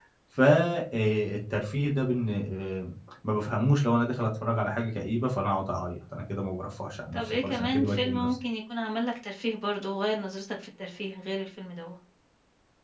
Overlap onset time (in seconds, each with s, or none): 7.1 s